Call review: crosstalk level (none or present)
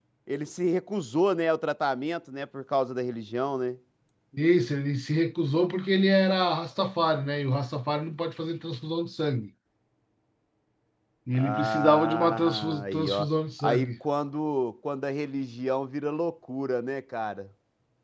present